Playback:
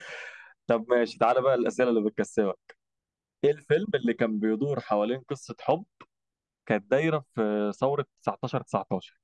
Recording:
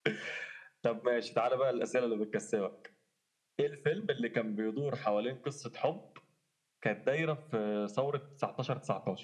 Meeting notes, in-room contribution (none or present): none